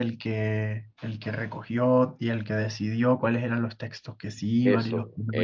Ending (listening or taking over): taking over